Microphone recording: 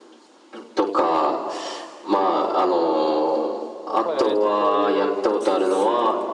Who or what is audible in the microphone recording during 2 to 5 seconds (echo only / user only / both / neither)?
both